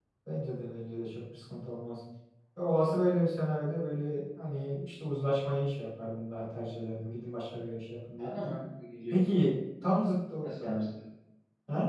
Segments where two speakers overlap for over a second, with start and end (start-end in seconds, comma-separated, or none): none